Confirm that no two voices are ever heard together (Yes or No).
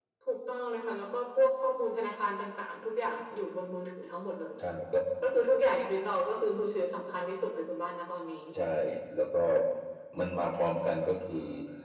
Yes